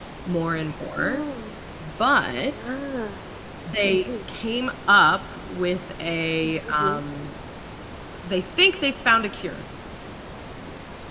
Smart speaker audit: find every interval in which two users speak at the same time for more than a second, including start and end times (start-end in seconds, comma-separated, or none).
none